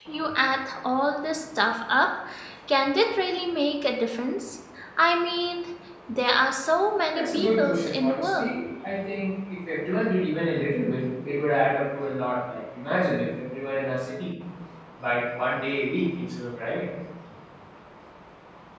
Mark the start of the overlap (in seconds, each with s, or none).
7.1 s